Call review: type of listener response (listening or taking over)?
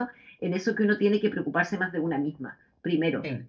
listening